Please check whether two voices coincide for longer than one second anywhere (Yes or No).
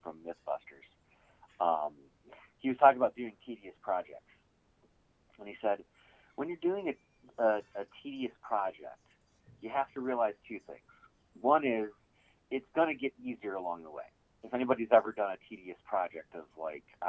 No